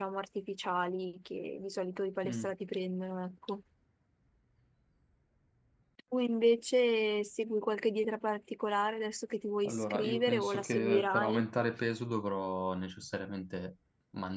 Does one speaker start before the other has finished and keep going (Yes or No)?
Yes